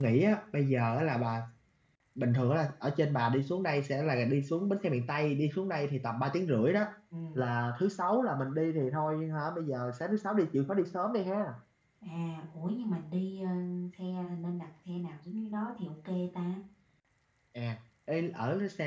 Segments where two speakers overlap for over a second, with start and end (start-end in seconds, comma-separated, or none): none